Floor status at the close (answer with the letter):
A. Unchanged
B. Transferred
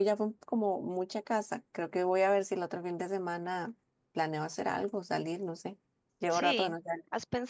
B